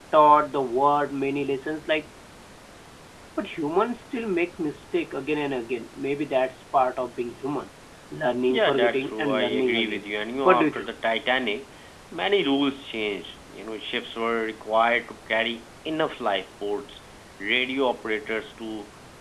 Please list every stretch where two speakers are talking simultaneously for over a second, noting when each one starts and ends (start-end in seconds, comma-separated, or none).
8.5-10.0